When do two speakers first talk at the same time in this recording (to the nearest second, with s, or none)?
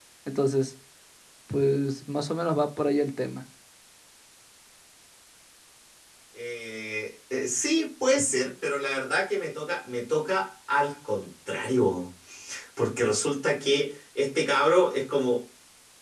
none